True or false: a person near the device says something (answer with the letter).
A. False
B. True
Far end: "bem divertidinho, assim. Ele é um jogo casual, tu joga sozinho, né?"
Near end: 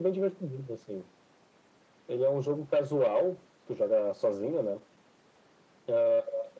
A